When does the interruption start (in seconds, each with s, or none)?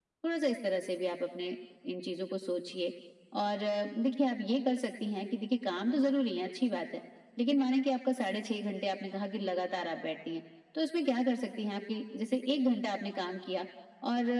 none